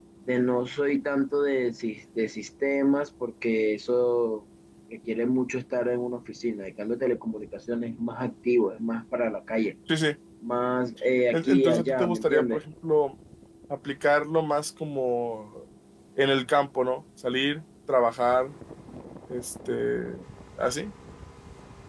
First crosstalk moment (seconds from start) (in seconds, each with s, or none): 11.3 s